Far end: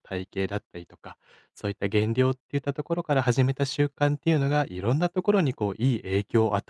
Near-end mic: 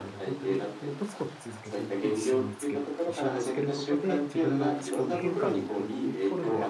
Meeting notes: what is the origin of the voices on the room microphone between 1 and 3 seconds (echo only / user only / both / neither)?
both